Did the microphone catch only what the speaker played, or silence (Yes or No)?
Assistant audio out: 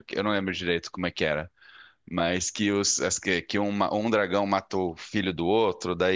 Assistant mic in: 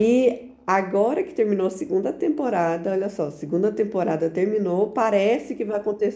No